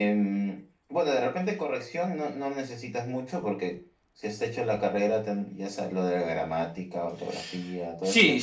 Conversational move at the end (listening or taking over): taking over